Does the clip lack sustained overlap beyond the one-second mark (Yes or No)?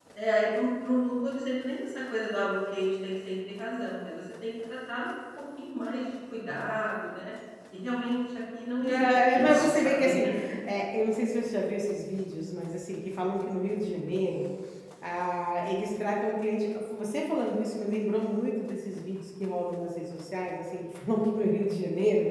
No